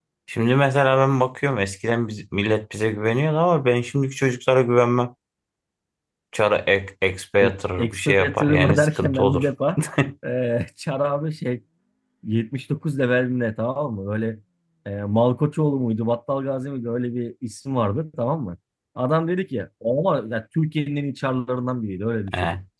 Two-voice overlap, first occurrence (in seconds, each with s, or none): 7.4 s